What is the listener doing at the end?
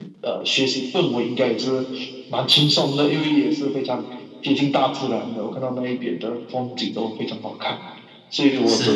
listening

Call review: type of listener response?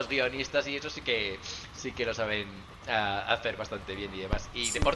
listening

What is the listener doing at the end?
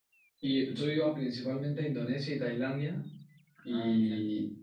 listening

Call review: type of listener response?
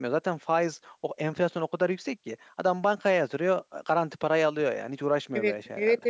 taking over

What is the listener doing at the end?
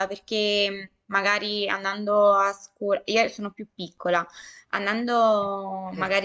listening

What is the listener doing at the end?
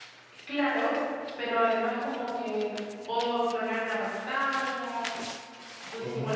listening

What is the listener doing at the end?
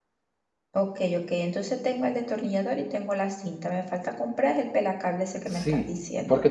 taking over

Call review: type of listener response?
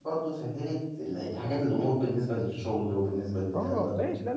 taking over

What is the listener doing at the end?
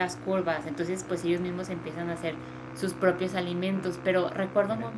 listening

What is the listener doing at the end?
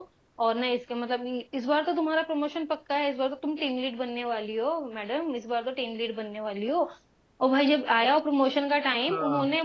listening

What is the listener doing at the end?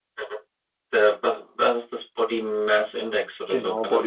taking over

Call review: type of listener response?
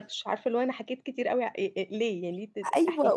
taking over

